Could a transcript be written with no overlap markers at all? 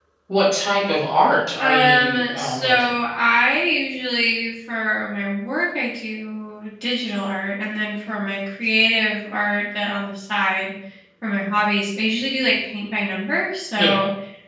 No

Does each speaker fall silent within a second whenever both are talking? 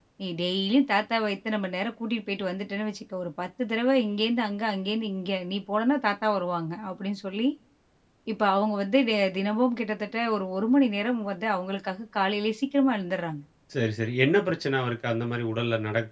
Yes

